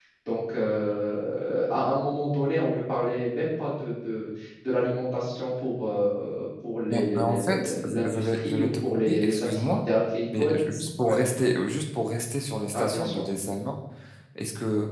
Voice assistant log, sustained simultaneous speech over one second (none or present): present